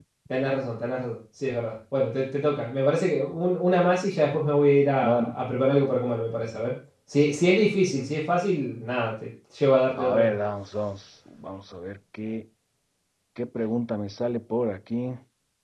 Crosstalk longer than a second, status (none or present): none